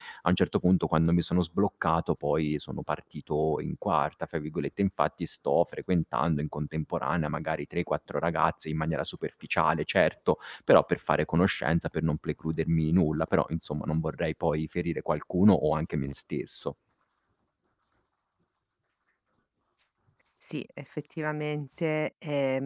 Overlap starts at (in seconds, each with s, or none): none